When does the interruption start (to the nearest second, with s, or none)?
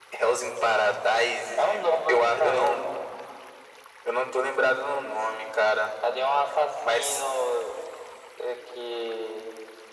2 s